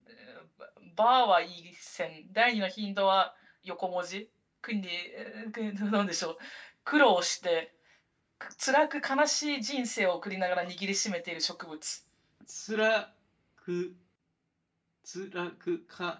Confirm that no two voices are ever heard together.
Yes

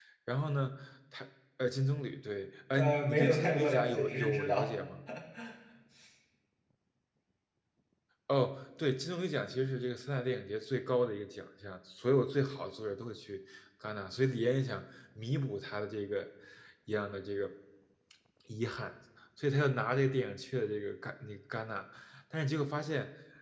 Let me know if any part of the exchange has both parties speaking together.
Yes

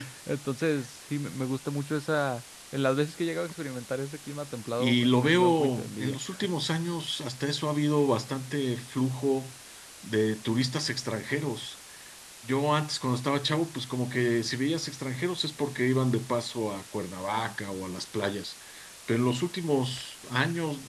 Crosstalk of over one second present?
Yes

